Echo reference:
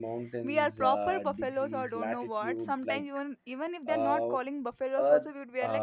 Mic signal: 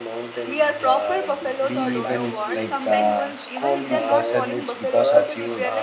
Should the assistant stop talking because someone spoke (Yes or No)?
Yes